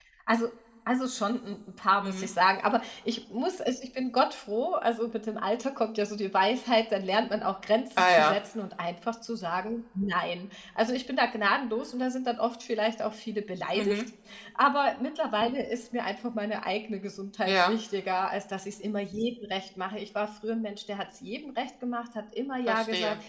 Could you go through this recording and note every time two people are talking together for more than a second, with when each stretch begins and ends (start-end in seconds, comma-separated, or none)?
none